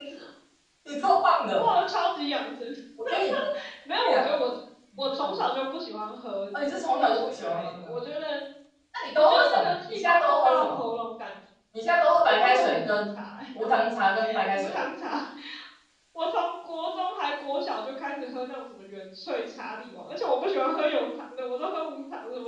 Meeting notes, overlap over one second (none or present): present